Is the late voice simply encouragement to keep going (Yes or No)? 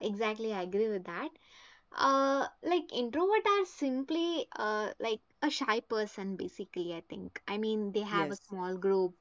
Yes